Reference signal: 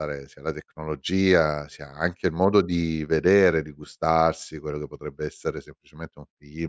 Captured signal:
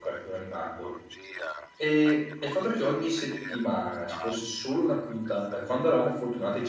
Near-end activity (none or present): present